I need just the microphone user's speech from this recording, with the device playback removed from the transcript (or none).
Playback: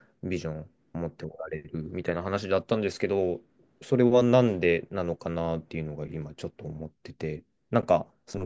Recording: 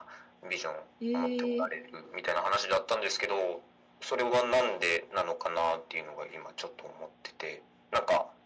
ええ